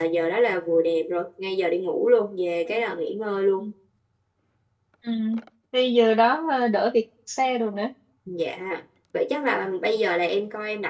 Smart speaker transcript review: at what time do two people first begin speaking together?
none

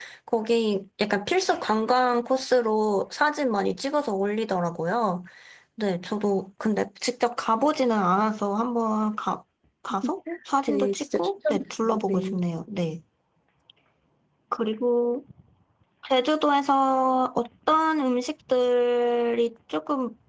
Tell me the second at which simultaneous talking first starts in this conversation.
10.7 s

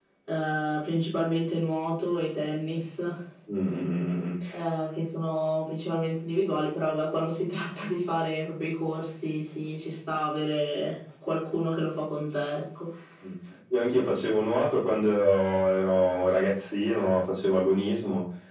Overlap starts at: none

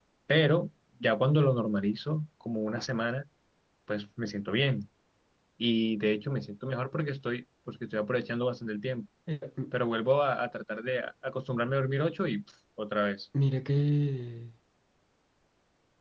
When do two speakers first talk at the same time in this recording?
none

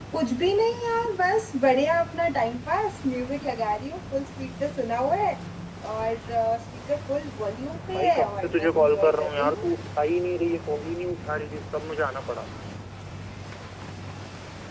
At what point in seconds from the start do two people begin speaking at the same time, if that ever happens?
7.9 s

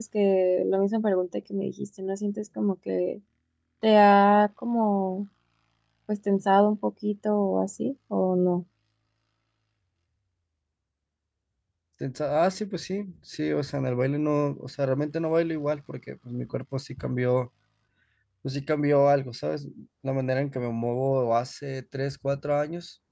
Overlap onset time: none

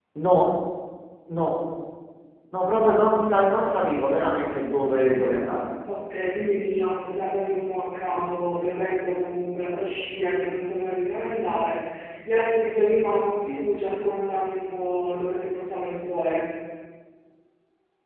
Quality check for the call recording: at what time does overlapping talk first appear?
none

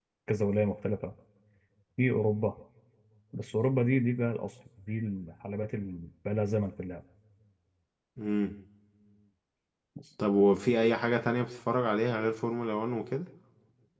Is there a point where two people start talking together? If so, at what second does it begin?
none

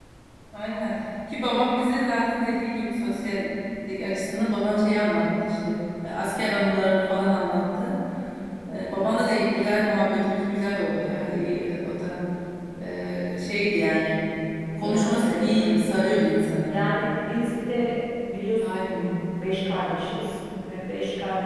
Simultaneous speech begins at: 14.8 s

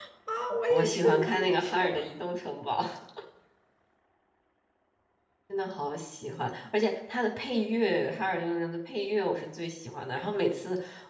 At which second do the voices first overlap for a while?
0.7 s

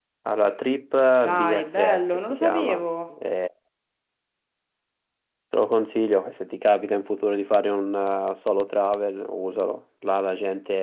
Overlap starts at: 1.3 s

